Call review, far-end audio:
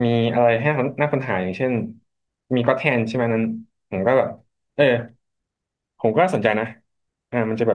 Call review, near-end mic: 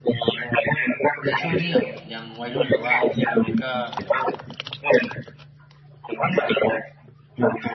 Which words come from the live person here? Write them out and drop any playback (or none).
ในช่วงที่แบบยังวัยรุ่นหรือว่ายังเด็กอยู่เนี่ยก็